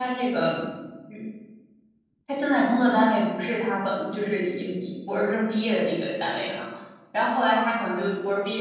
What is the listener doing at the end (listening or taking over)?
listening